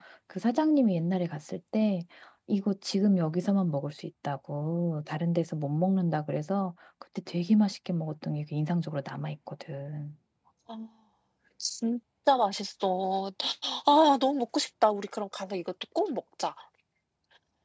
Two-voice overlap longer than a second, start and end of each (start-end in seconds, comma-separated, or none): none